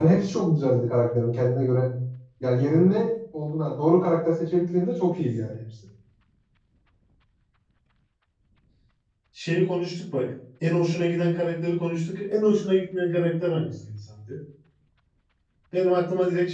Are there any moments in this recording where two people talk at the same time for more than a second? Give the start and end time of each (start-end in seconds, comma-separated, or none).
none